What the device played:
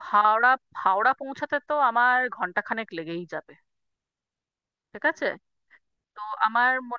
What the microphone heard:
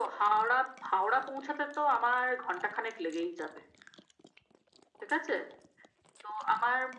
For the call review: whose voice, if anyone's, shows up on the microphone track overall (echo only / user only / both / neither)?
echo only